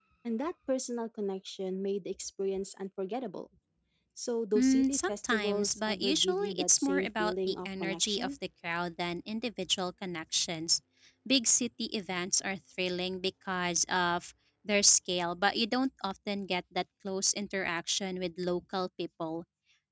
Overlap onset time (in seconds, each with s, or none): 4.6 s